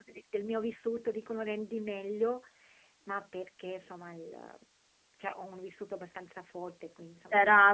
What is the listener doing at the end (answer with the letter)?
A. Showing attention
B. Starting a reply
B